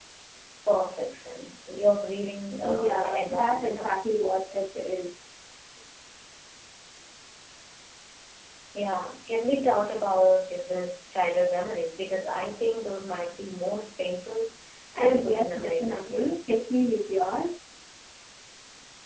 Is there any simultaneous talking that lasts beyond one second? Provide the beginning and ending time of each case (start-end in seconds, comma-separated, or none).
2.6-4.0, 14.9-16.4